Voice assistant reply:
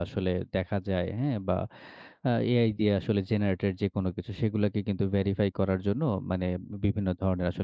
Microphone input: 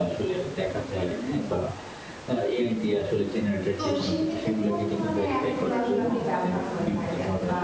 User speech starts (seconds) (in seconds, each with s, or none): 3.8 s